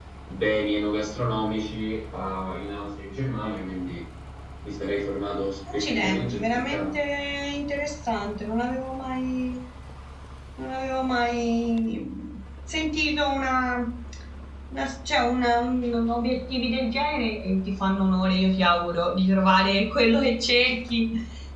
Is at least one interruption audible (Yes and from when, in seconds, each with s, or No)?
Yes, from 5.7 s